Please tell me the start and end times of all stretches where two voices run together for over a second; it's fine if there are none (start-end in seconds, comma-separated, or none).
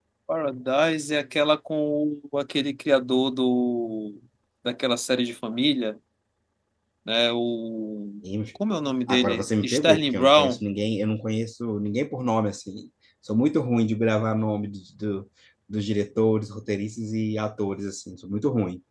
9.1-10.6